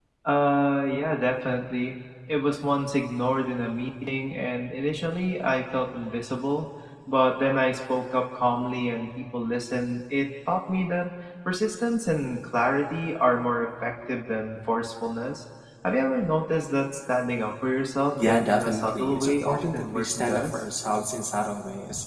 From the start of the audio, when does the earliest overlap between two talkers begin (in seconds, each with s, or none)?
18.1 s